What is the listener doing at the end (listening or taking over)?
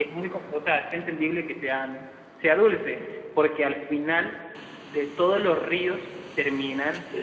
listening